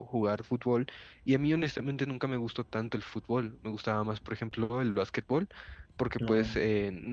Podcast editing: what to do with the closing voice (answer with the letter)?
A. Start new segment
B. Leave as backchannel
B